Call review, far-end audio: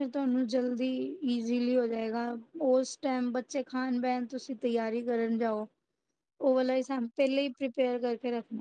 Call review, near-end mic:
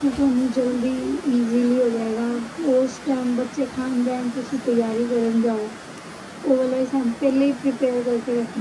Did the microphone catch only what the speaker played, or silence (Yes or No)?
Yes